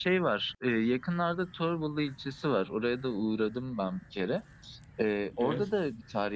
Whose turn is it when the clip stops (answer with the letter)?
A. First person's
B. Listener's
A